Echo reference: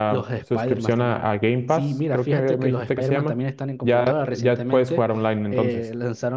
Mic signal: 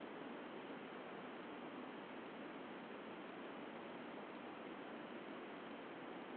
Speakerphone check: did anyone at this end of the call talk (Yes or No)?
No